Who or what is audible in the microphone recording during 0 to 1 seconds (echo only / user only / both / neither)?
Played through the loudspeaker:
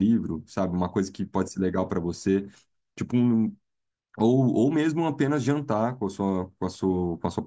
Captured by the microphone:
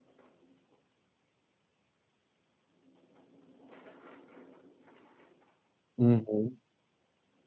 neither